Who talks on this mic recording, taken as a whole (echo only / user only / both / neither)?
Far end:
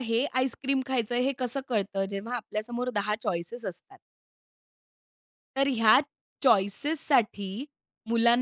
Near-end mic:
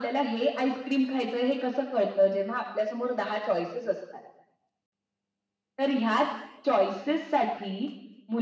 echo only